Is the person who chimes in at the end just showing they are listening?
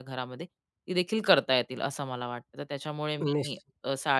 Yes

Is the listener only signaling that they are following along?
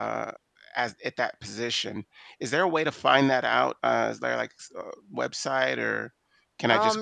No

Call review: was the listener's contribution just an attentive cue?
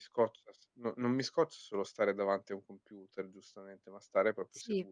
No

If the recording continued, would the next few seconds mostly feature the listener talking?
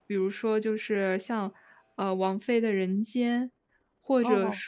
No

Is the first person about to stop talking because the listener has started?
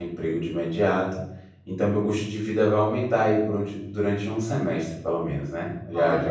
No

